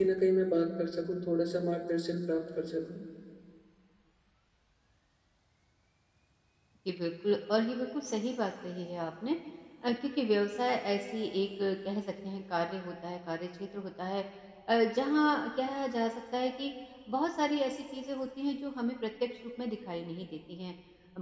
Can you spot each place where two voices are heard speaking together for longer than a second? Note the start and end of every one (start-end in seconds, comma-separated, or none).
none